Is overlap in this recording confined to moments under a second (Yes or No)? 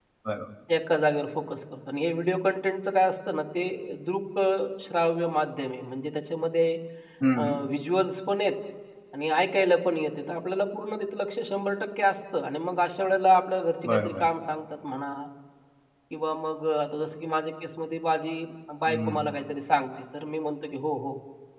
Yes